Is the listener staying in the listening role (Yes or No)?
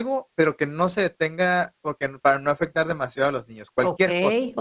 No